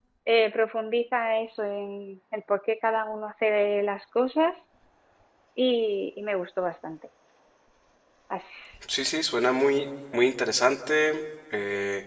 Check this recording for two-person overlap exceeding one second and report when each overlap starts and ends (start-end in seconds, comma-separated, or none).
none